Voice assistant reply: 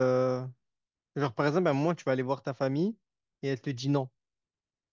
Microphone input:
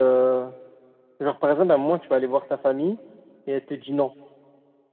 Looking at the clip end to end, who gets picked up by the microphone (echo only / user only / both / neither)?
echo only